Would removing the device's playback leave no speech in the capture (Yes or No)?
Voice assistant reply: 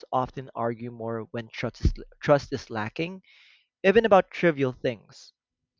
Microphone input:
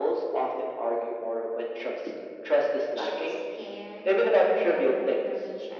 No